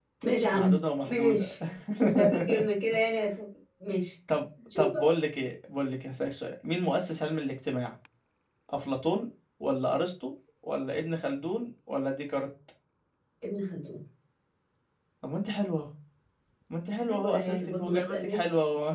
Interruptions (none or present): present